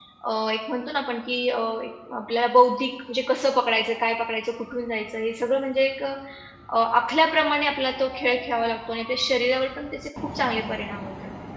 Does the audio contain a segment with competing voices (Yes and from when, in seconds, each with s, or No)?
No